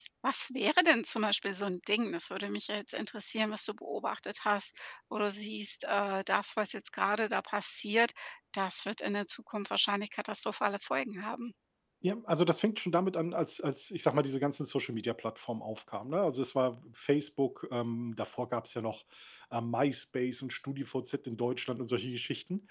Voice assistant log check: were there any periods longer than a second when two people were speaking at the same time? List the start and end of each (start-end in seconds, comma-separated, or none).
none